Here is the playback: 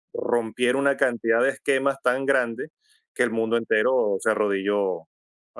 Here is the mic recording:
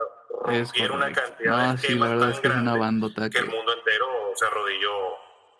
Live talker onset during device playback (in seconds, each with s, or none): 0.5 s